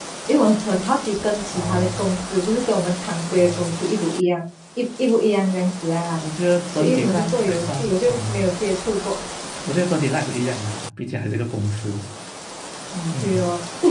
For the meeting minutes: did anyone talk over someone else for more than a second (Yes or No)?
Yes